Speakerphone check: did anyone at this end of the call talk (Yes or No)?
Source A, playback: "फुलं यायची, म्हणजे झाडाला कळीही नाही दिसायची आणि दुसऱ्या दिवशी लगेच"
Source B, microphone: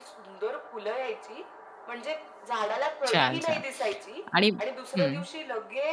Yes